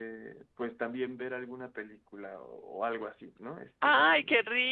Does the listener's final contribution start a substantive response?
Yes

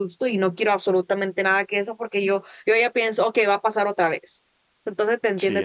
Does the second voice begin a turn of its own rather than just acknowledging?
No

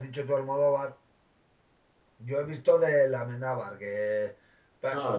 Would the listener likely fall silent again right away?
Yes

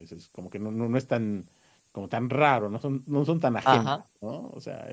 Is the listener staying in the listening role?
Yes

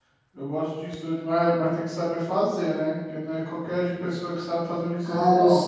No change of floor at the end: No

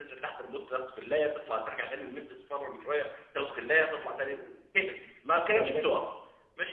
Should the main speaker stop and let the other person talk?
No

